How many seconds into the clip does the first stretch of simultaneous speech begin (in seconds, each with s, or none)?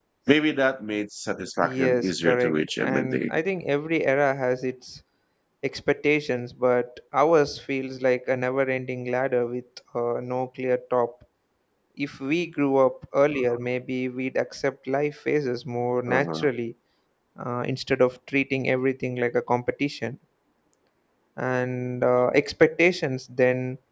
1.6 s